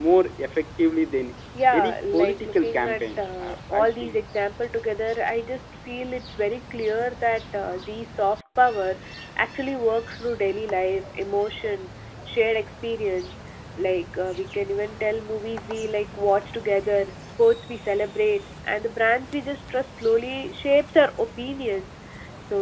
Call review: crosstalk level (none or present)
present